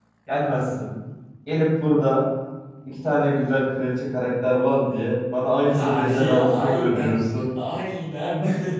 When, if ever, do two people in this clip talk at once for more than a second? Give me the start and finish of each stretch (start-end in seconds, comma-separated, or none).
5.6-7.2